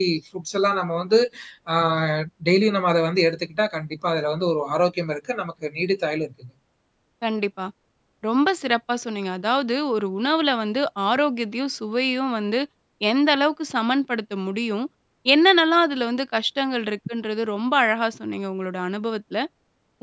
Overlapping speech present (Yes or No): No